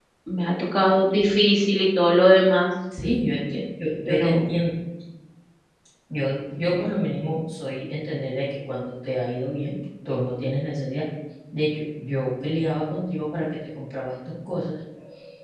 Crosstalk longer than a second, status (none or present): none